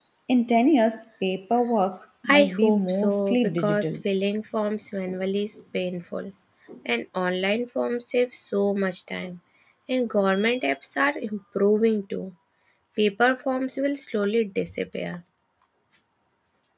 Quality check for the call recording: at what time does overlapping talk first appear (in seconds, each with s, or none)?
2.2 s